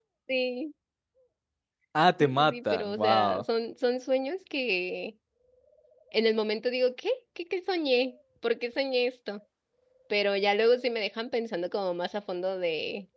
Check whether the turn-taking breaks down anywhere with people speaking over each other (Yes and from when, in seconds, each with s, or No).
Yes, from 2.2 s